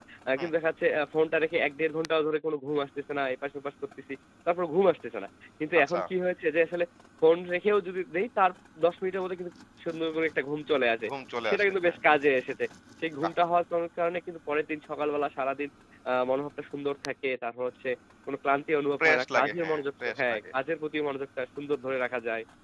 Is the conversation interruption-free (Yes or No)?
No